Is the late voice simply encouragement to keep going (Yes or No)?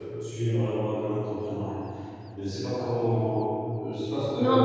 Yes